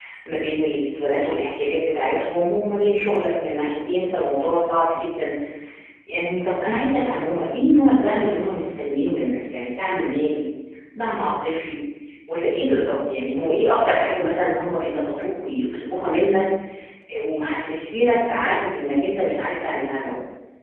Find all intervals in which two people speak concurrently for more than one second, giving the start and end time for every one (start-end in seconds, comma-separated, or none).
none